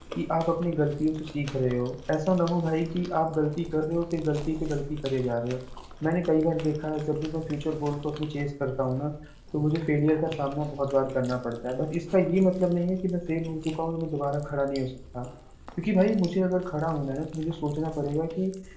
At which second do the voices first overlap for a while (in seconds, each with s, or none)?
none